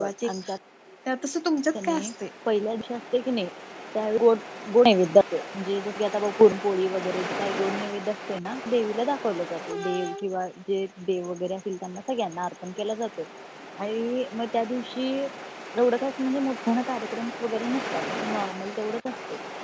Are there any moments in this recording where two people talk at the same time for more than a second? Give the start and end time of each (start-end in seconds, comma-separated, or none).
none